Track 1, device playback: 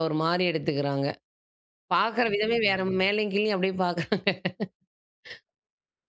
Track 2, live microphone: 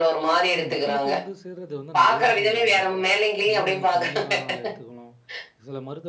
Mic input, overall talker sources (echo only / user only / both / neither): both